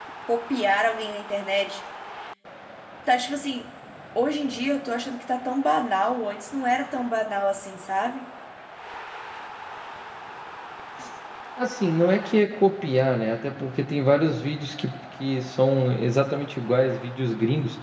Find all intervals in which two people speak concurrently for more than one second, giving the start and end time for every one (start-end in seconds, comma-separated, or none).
none